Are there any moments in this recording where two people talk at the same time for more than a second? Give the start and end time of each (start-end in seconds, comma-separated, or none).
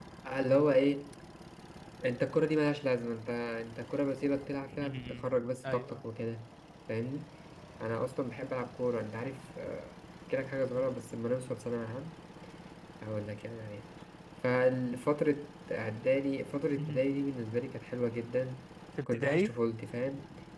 4.8-6.0